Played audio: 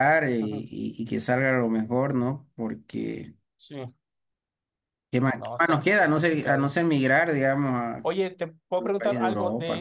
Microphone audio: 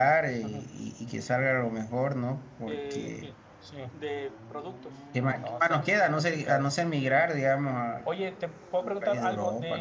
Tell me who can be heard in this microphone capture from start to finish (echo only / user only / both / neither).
both